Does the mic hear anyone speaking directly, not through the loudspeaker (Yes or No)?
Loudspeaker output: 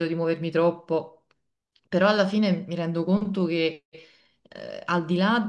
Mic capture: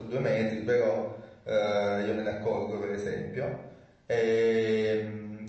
Yes